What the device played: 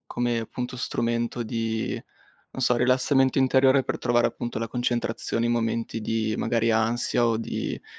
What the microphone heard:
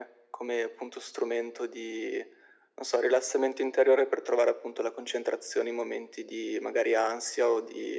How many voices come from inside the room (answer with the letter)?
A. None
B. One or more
A